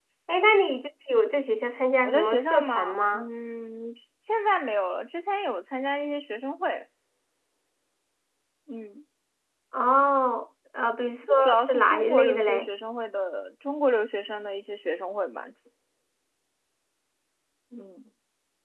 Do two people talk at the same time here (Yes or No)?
Yes